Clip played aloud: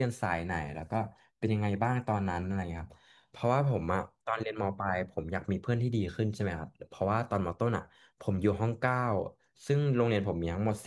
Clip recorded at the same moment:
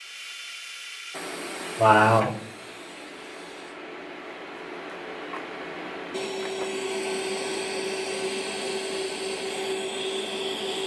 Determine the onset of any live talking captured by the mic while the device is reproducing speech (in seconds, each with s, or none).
1.8 s